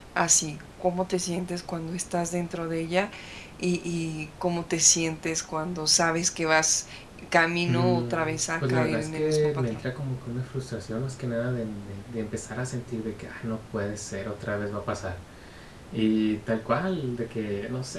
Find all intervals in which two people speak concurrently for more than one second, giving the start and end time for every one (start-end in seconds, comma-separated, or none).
7.7-9.8